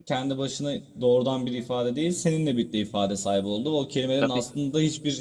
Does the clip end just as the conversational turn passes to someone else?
No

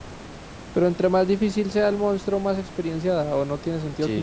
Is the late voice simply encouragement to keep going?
No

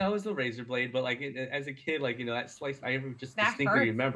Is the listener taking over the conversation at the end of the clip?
No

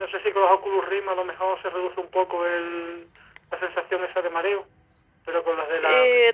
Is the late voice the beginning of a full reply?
Yes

